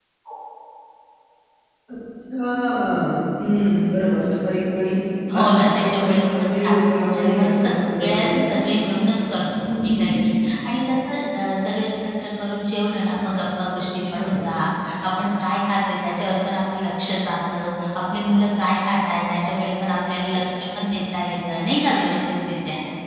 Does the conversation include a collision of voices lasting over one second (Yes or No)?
Yes